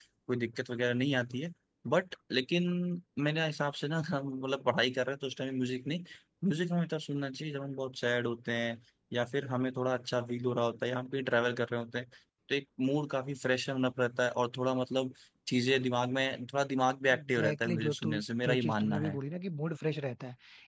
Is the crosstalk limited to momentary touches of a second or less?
No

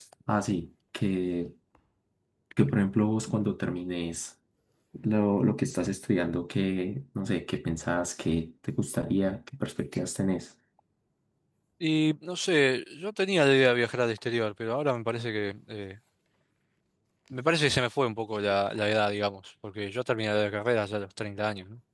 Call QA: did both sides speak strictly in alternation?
Yes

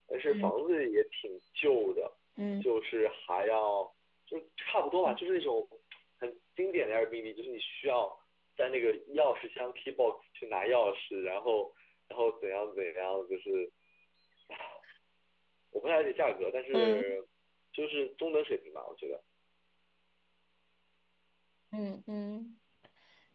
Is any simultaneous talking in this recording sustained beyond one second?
No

